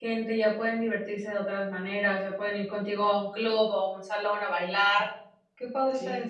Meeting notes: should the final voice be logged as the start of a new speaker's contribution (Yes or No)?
Yes